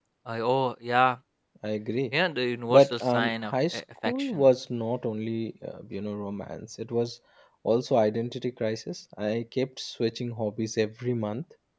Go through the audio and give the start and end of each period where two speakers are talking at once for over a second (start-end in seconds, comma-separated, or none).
2.7-4.4